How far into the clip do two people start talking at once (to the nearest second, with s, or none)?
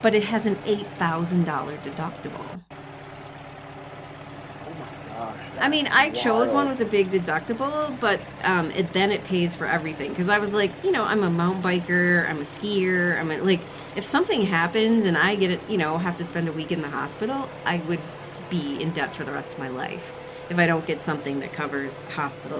6 s